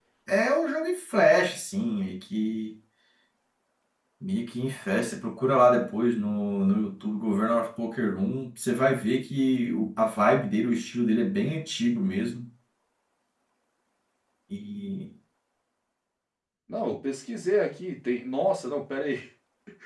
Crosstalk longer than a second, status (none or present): none